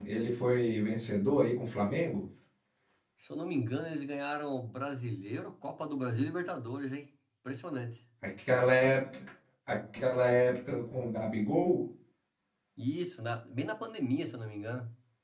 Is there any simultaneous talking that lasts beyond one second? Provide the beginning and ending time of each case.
none

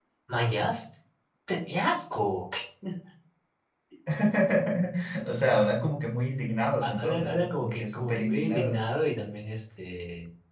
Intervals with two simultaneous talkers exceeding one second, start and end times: 6.8-8.8

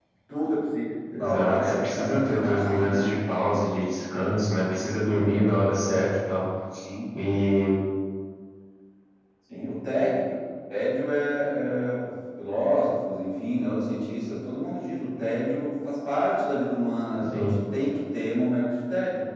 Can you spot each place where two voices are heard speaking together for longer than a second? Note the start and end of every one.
1.2-3.6

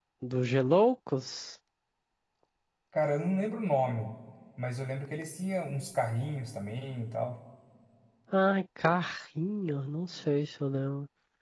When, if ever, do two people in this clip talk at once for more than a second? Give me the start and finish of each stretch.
none

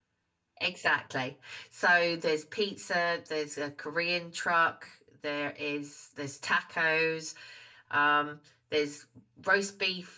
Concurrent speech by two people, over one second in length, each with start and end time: none

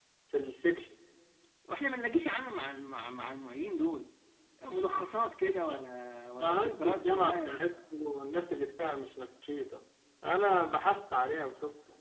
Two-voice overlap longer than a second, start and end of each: 6.4-7.6

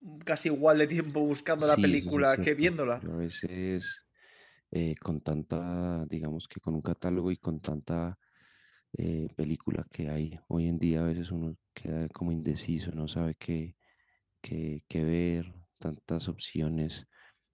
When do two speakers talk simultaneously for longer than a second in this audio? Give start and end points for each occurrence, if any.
1.6-3.0

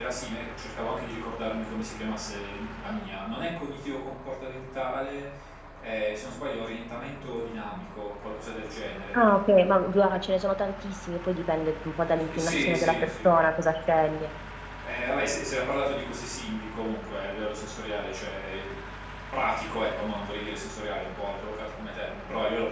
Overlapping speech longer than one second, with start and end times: 12.0-13.3

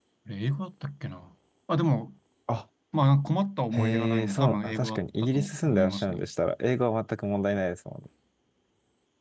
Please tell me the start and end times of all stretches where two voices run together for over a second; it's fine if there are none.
3.8-6.2

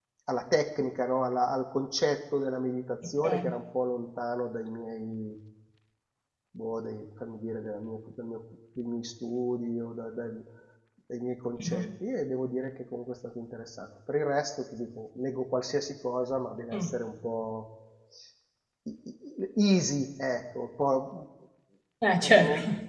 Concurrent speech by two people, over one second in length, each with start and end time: none

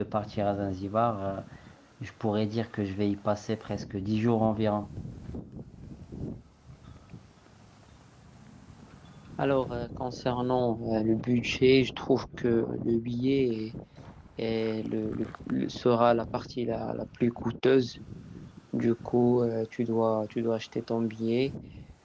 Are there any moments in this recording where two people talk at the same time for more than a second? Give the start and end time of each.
none

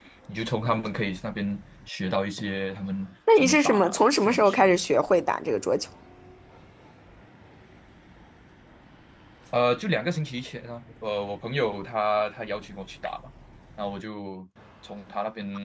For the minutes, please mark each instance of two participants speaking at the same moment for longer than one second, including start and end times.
3.4-4.8

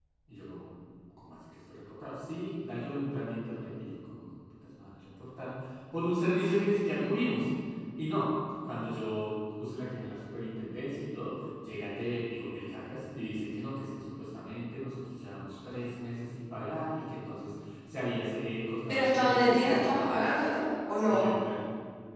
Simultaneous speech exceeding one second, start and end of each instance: 18.9-20.2

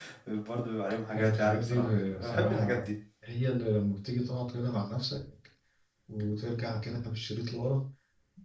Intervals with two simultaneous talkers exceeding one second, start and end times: 1.2-2.9

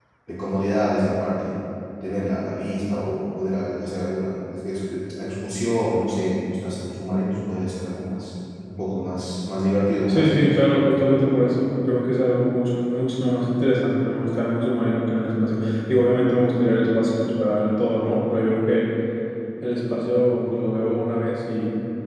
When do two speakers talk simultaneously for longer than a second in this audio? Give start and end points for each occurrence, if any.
none

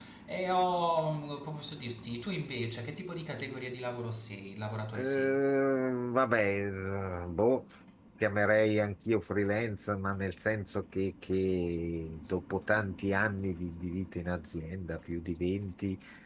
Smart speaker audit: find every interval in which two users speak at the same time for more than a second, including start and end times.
none

